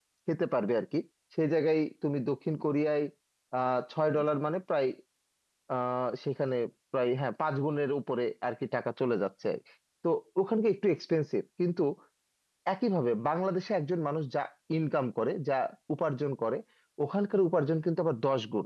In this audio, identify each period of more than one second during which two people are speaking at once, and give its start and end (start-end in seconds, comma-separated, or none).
none